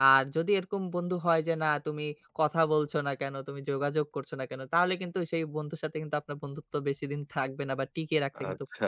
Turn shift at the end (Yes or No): Yes